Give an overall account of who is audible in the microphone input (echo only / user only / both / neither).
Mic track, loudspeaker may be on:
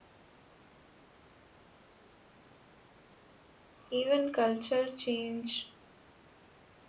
user only